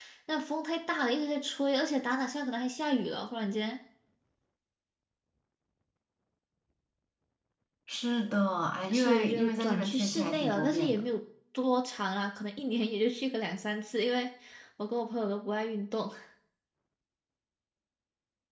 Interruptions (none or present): present